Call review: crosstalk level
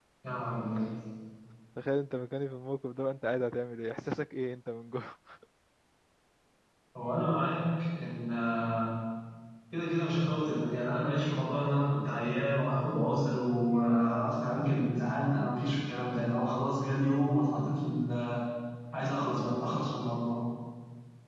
none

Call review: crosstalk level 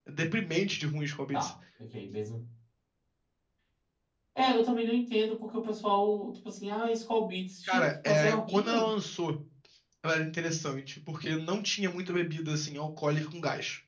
present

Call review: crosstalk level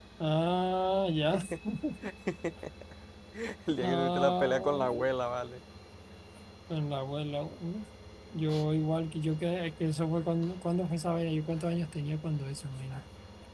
present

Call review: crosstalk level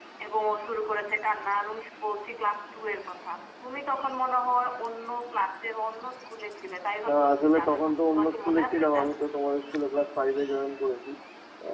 present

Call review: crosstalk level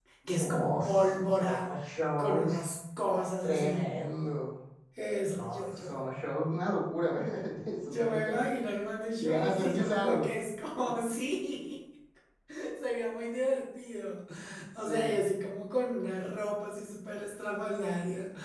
present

